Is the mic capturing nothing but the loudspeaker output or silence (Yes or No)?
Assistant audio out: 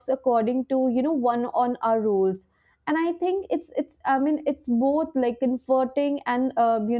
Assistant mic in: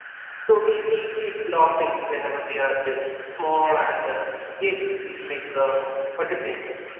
No